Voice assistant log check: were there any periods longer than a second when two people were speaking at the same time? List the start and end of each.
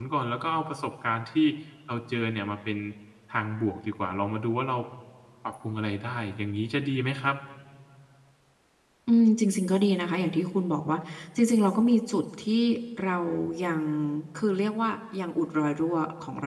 none

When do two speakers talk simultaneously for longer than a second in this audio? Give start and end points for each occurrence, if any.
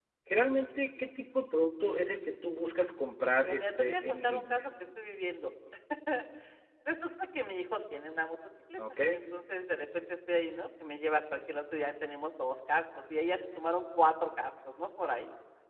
3.5-4.7

